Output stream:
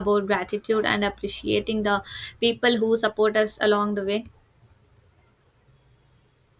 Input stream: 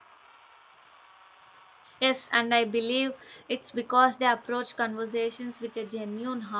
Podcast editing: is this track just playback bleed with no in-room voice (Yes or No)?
No